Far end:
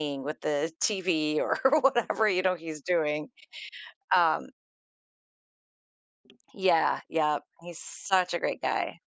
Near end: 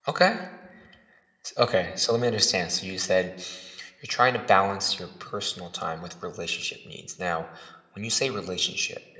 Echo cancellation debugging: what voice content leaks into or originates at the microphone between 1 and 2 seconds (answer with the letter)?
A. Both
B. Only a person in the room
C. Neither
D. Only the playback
B